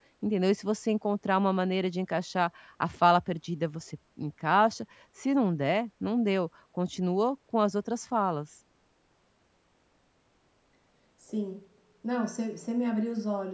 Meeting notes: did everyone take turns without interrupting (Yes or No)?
Yes